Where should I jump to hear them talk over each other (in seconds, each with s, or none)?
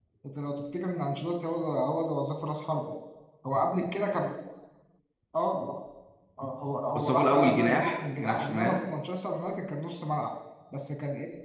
6.9 s